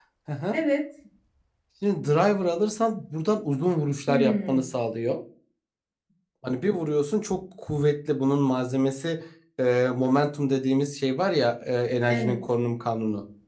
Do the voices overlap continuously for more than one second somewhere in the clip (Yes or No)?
No